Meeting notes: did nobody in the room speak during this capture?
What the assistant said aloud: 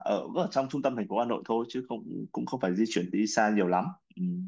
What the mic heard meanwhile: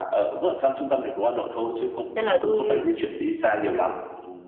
No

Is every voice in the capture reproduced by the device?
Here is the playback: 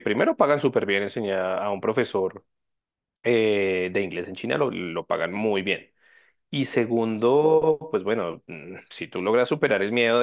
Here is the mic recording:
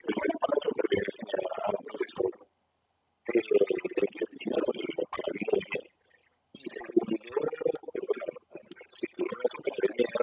Yes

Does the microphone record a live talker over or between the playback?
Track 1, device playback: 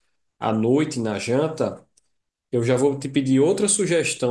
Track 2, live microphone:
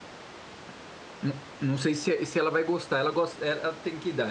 Yes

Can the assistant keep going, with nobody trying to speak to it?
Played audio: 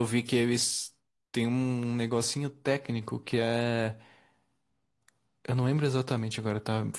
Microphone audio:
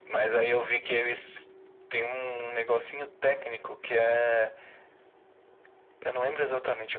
Yes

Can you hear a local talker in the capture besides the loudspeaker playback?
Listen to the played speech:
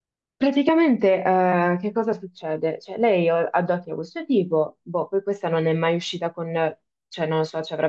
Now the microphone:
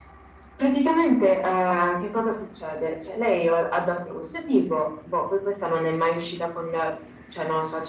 No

